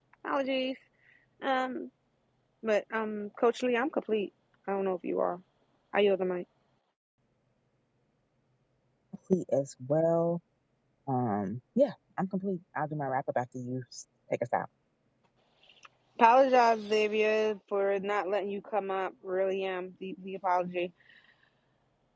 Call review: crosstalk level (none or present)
none